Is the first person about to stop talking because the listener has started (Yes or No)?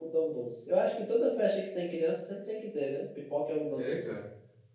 Yes